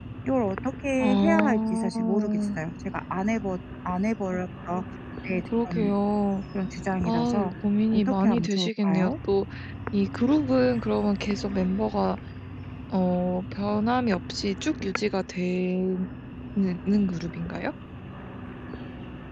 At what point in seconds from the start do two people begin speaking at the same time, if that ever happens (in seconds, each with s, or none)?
1.0 s